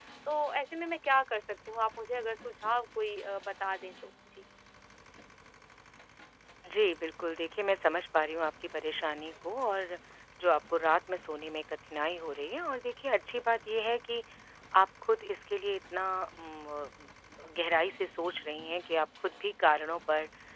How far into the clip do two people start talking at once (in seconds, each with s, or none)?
none